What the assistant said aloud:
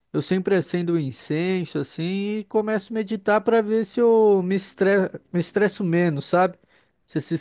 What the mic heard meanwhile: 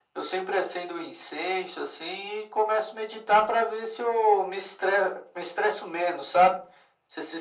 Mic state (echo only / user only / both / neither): echo only